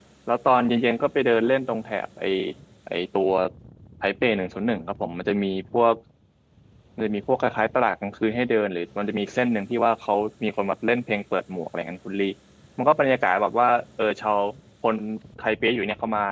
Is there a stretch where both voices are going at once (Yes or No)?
No